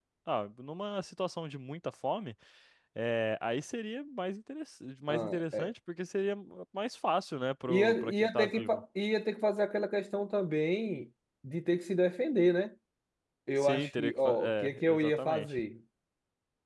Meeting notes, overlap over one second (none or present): present